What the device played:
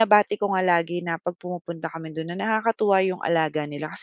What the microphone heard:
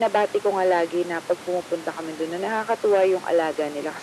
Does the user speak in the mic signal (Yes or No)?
No